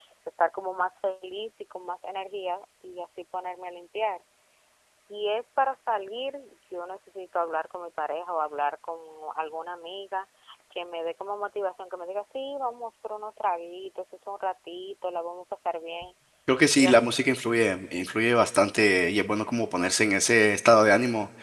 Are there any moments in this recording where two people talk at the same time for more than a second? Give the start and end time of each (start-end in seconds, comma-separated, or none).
none